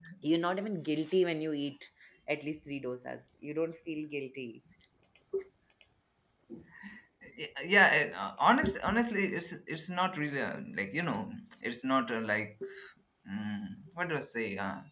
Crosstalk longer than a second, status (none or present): none